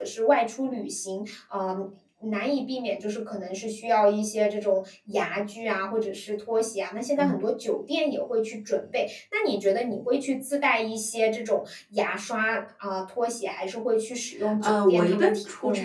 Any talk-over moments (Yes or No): Yes